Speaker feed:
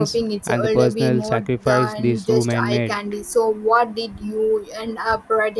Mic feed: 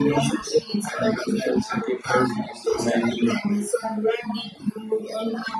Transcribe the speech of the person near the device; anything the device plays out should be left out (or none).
none